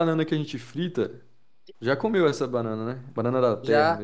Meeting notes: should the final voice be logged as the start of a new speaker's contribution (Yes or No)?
Yes